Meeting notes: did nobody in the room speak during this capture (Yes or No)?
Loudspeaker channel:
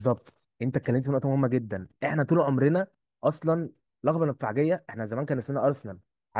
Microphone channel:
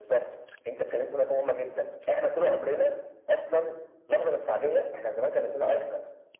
Yes